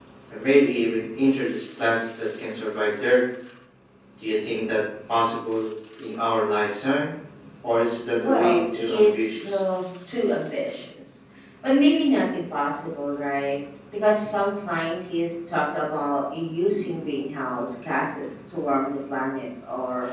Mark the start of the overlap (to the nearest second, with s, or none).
8 s